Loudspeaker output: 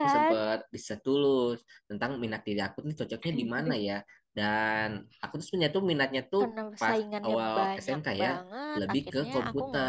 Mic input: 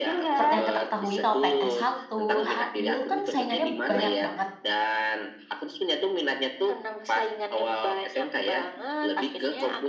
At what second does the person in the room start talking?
0.3 s

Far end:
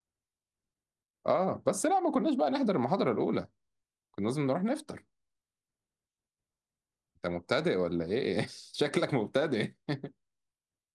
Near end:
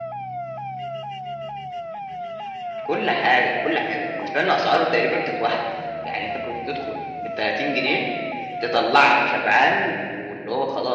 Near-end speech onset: 2.8 s

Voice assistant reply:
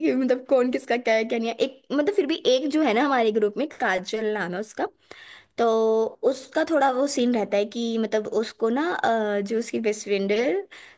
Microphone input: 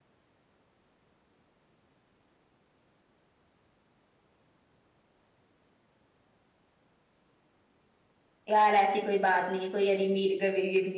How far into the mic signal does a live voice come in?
8.5 s

